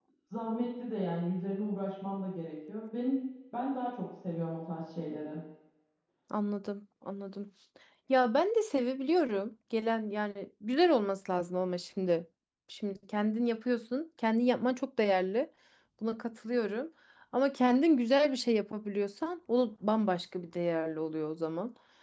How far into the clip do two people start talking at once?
none

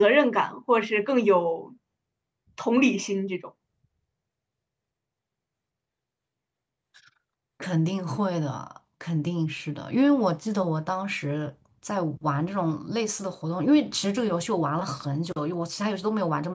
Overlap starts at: none

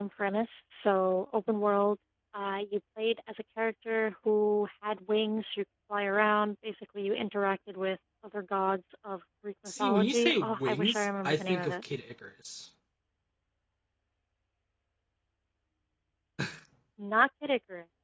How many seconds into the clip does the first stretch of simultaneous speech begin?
9.7 s

